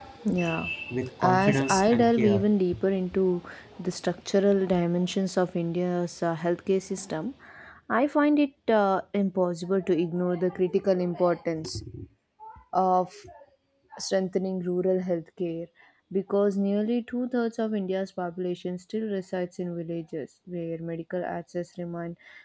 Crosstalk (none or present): present